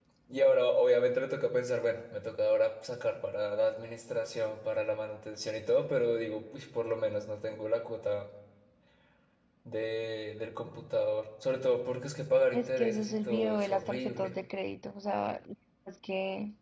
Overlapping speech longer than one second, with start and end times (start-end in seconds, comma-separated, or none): 12.5-14.3